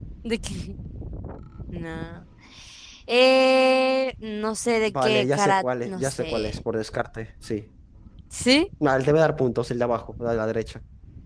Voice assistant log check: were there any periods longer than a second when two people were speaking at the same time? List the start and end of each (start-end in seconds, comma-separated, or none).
4.9-6.5